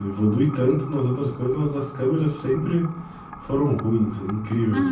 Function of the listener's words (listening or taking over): taking over